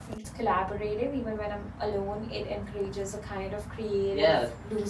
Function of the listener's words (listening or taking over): taking over